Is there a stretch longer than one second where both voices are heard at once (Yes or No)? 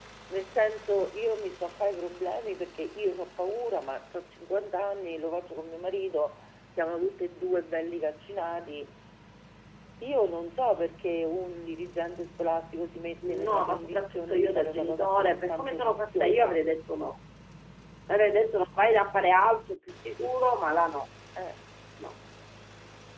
Yes